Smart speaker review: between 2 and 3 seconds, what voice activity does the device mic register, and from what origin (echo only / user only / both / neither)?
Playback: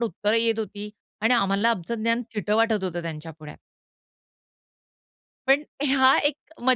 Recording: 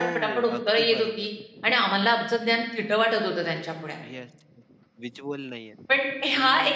echo only